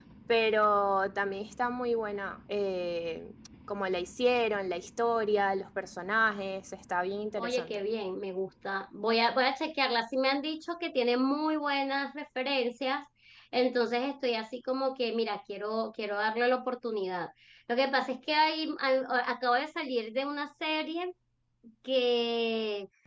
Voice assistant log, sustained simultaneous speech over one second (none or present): none